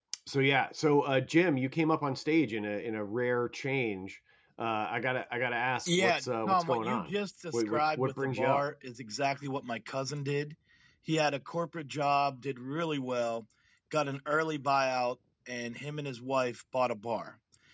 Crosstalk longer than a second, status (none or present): present